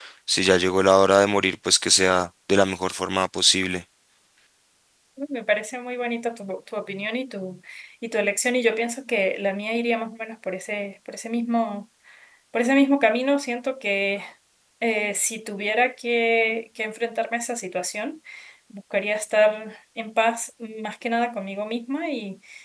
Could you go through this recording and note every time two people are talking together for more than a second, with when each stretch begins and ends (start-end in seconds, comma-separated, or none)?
none